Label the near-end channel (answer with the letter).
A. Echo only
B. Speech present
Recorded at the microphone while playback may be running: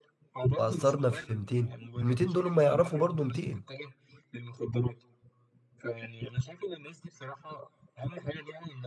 B